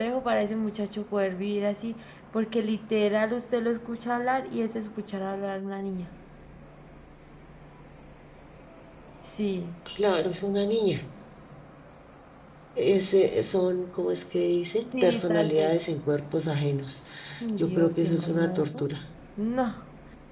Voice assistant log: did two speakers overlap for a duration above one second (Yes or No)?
Yes